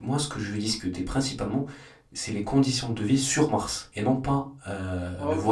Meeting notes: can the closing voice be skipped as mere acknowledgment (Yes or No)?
No